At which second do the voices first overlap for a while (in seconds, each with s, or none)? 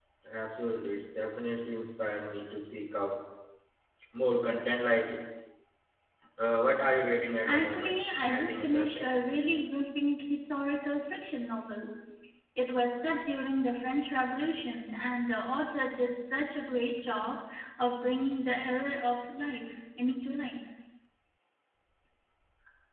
7.4 s